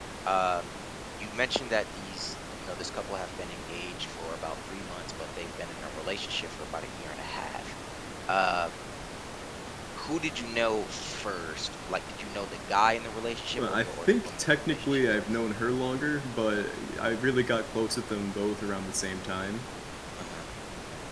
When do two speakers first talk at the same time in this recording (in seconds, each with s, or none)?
13.5 s